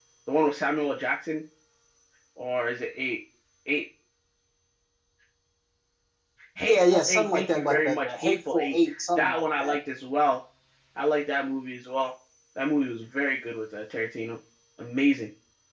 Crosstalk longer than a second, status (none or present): present